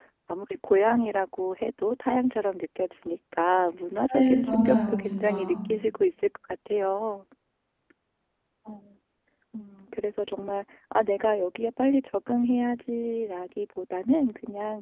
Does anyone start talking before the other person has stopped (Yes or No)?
Yes